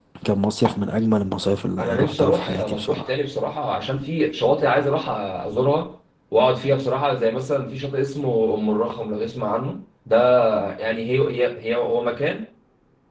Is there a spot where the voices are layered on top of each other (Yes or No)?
Yes